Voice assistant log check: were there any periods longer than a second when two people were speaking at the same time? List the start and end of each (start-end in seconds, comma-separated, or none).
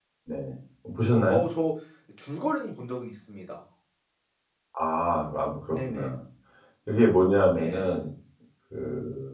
none